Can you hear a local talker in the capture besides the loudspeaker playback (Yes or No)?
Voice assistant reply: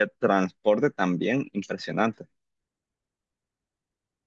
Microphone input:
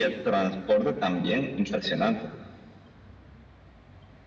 No